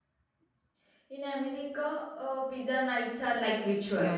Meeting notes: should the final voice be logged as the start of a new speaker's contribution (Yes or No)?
Yes